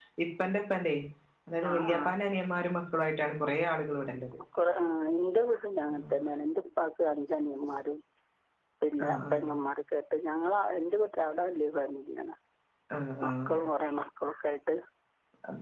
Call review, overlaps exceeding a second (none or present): none